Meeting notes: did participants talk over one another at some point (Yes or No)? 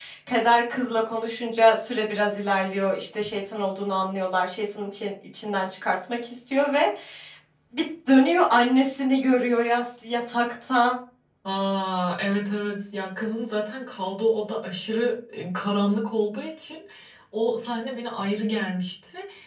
No